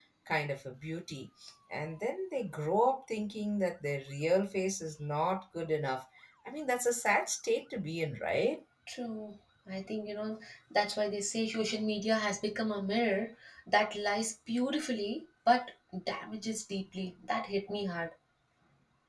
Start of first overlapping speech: none

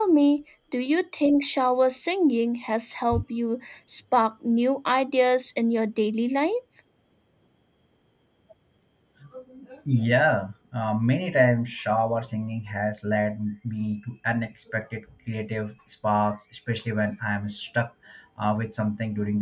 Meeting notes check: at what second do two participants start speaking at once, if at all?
none

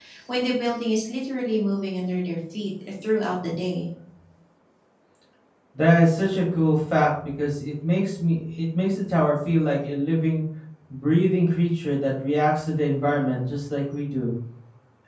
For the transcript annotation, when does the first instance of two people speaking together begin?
none

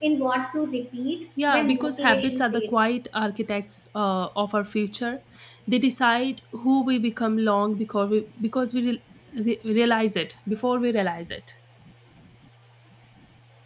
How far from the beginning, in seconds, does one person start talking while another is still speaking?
1.4 s

